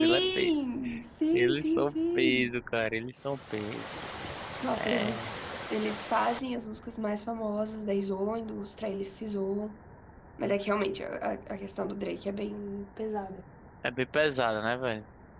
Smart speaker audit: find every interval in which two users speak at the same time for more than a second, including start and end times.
1.3-2.6

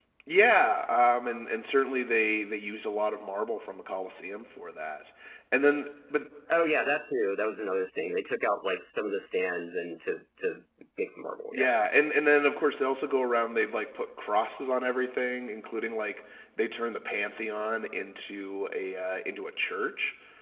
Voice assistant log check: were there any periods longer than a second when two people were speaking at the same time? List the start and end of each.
none

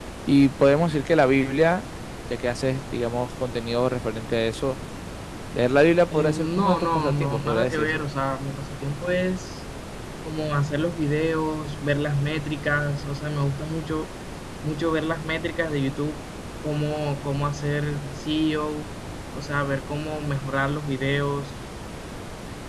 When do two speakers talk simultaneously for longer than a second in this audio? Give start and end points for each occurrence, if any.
6.1-8.0

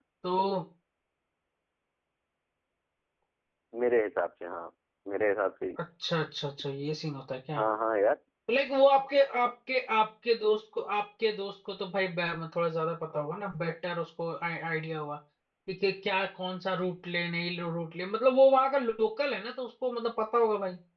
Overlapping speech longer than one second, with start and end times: none

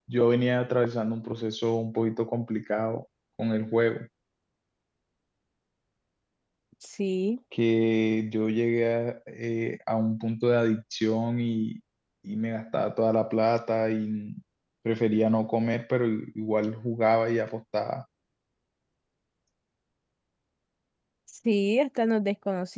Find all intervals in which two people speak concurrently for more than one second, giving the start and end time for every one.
none

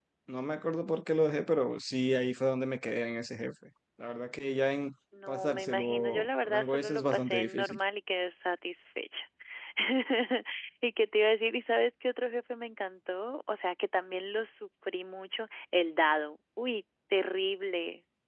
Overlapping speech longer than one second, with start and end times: 5.3-7.8

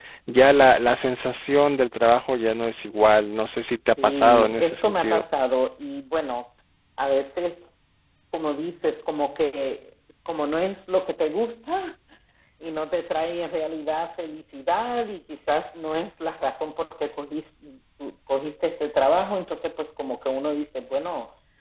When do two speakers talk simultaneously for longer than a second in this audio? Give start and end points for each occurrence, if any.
4.0-5.2

